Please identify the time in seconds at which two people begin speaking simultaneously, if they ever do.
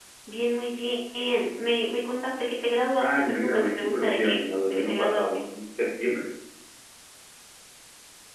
3.0 s

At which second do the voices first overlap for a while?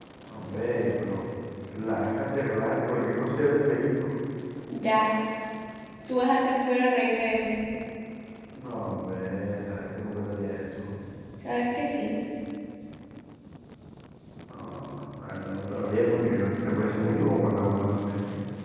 none

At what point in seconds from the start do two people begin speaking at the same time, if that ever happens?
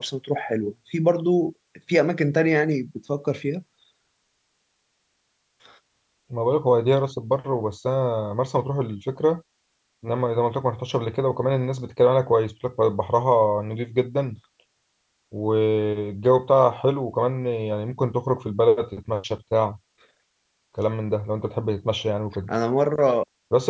none

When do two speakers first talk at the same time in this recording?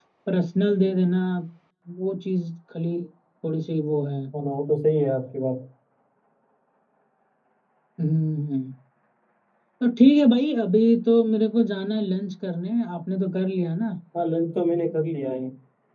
none

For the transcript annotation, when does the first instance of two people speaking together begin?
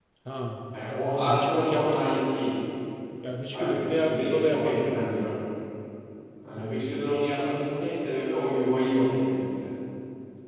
0.8 s

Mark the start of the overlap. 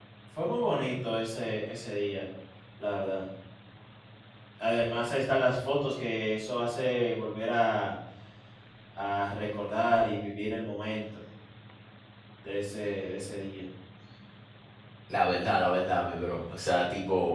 none

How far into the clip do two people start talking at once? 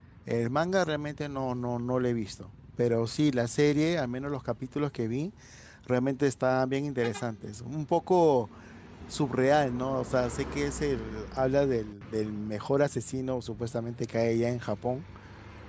none

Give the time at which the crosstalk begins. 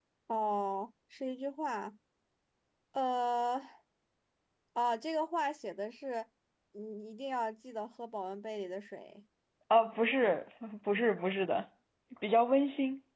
none

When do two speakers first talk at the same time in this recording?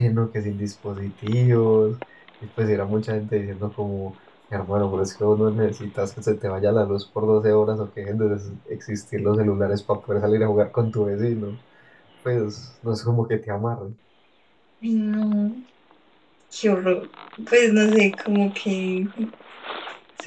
none

